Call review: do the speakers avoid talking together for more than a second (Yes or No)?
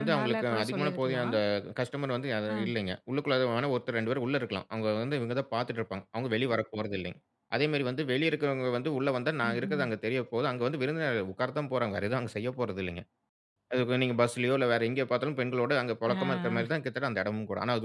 No